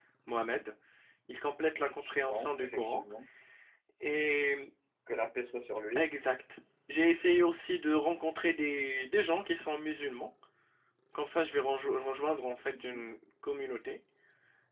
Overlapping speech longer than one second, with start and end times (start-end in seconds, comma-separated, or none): 1.8-3.0